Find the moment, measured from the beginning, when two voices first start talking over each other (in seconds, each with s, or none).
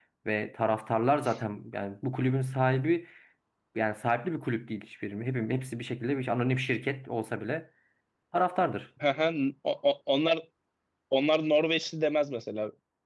none